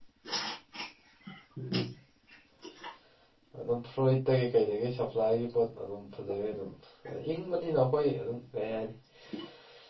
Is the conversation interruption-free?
Yes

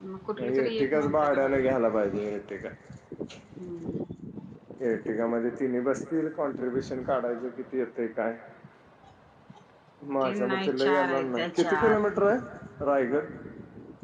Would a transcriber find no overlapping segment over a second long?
No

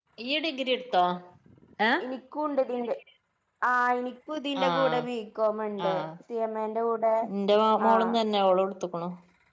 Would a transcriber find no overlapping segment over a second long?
Yes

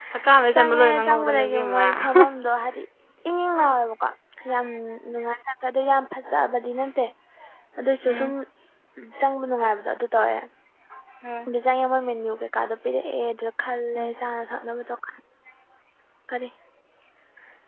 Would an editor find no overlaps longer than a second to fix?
No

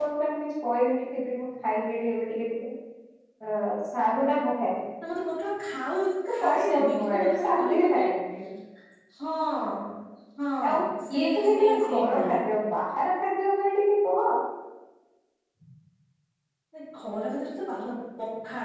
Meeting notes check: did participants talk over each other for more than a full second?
Yes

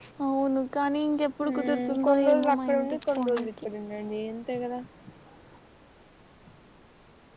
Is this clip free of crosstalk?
No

